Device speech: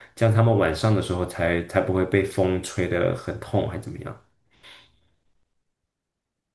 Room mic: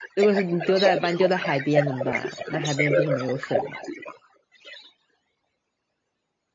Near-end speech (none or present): present